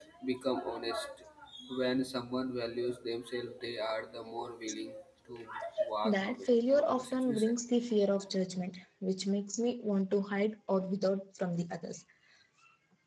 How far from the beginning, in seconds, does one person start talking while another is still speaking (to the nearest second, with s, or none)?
6 s